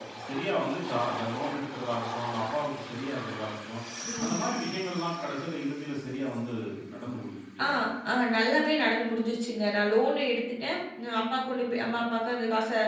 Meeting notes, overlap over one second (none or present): none